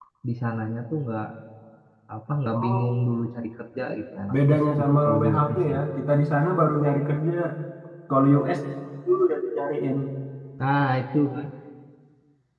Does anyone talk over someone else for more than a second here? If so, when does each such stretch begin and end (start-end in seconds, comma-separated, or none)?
4.3-5.8